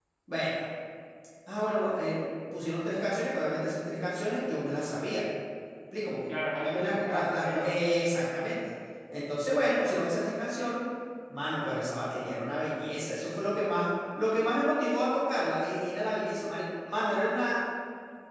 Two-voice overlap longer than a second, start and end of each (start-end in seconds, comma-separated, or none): 6.3-7.8